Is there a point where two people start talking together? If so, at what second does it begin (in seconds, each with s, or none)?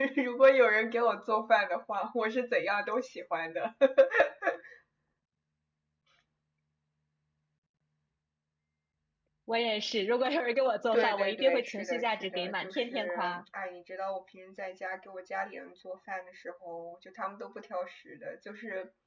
10.9 s